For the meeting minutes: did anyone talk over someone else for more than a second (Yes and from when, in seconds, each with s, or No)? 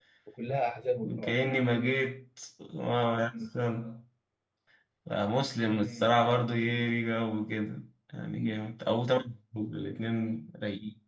No